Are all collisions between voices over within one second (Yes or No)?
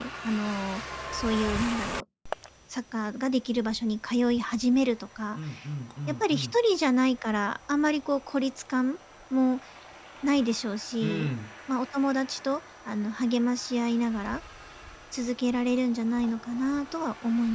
Yes